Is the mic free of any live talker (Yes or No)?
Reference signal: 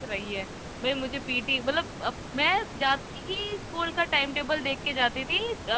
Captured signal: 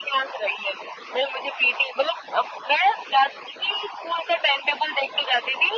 Yes